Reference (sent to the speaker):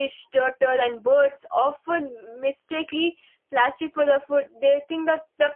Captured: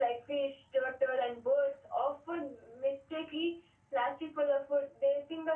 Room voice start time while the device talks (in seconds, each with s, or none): none